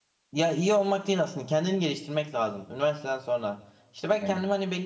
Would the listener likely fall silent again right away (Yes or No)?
Yes